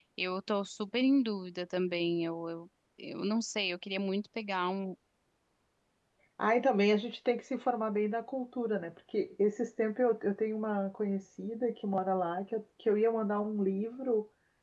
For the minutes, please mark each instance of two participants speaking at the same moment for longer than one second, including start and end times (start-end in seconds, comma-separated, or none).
none